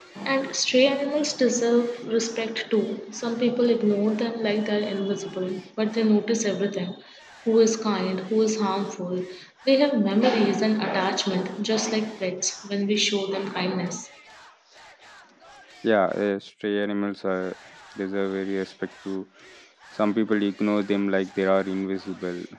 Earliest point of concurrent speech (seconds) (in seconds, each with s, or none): none